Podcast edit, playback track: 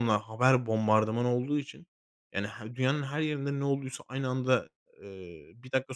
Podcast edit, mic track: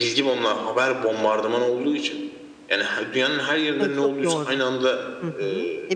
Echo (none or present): present